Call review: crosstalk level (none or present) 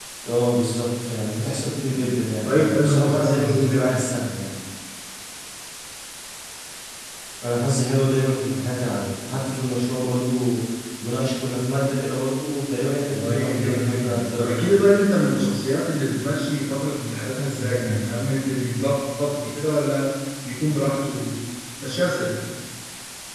present